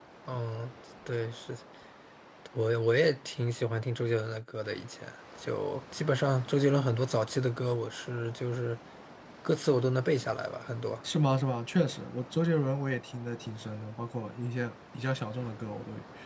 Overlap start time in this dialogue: none

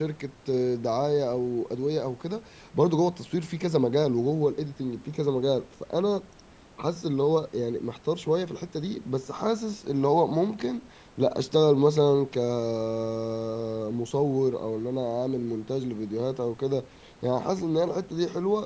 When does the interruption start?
none

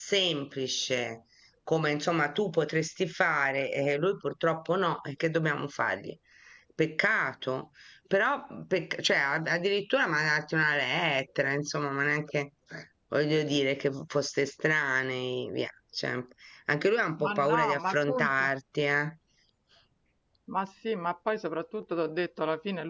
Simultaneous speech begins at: 17.2 s

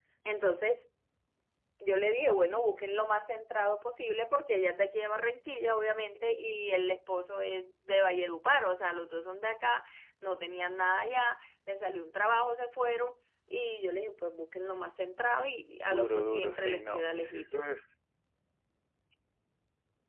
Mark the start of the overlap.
15.8 s

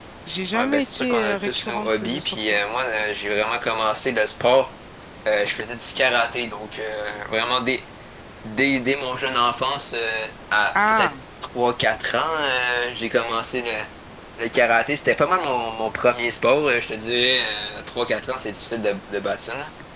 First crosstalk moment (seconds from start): 0.5 s

